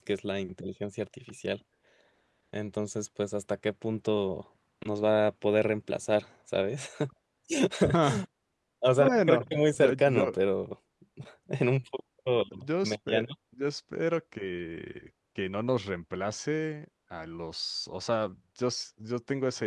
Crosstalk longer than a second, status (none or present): present